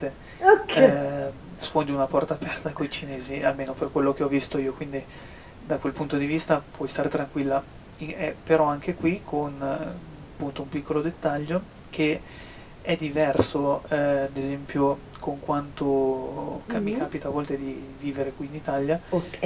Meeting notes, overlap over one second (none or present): none